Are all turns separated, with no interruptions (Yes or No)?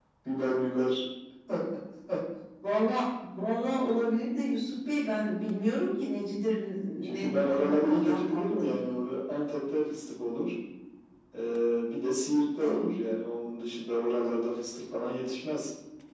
No